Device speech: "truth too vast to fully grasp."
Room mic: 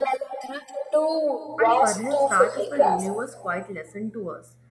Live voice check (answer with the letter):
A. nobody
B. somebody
B